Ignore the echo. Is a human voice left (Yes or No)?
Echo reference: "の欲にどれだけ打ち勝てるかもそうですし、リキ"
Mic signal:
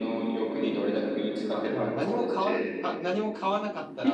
Yes